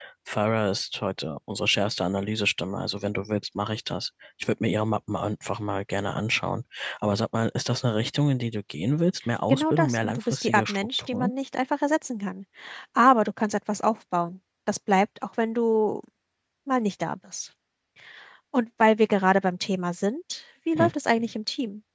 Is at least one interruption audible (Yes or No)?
Yes